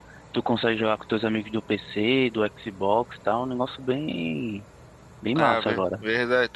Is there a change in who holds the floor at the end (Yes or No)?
Yes